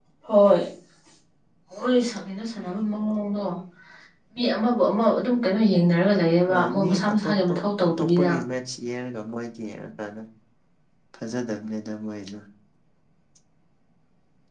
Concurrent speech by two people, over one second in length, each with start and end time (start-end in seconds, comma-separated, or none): 6.5-8.3